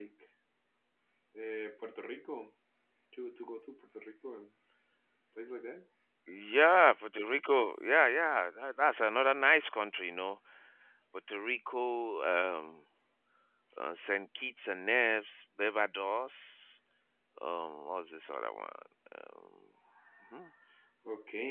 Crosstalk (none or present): none